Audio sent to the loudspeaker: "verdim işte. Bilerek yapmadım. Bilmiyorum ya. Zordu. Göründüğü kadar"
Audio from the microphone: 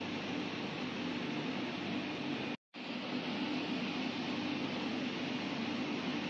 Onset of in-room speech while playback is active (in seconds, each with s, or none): none